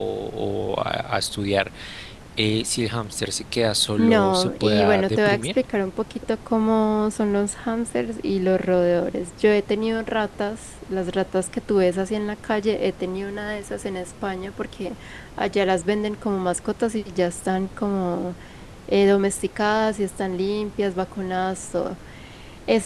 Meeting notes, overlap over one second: present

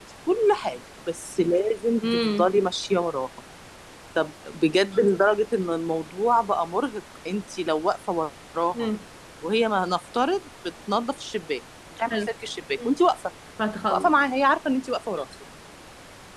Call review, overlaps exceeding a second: none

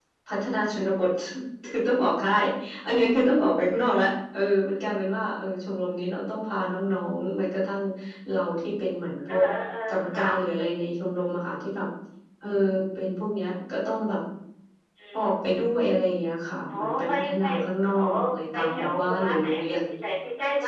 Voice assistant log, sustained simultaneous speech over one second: present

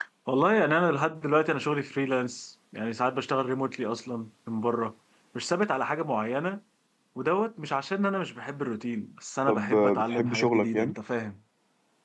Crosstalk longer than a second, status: present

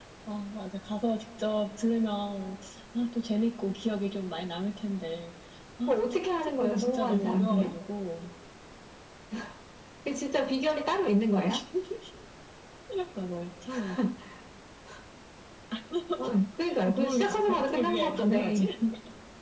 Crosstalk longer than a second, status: present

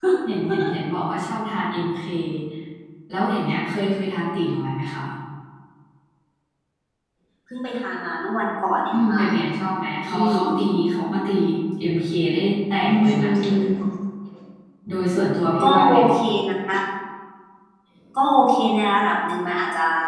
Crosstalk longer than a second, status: none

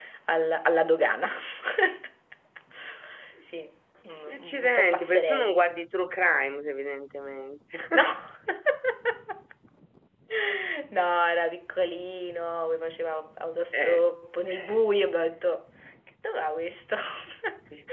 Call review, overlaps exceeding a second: present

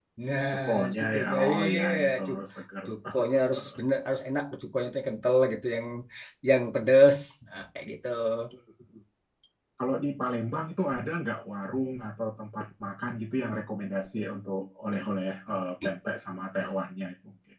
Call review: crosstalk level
present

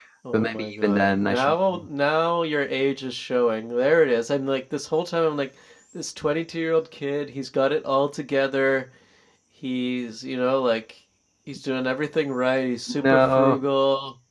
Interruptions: present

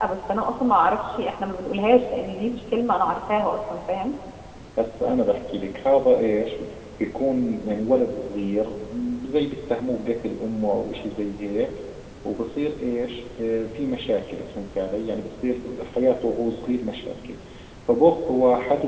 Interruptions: none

